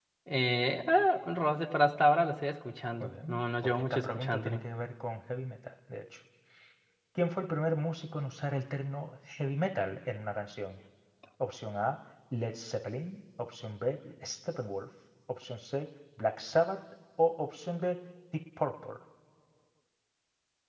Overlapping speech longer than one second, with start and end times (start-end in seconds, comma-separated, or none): 3.0-4.6